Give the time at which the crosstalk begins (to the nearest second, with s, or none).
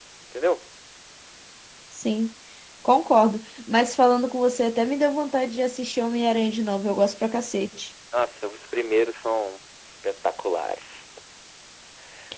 none